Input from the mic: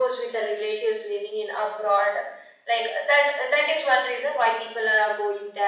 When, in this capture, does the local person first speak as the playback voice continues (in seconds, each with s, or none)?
none